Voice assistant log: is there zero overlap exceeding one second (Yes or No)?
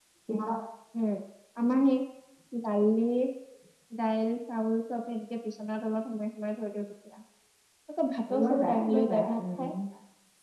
No